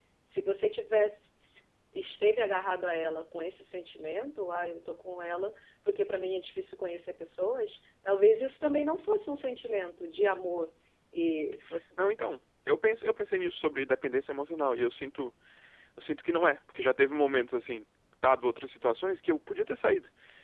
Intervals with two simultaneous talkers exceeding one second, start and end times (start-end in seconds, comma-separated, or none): none